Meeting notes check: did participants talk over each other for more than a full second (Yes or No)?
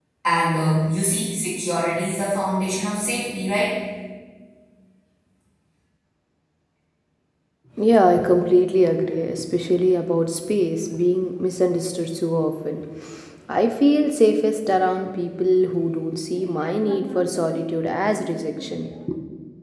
No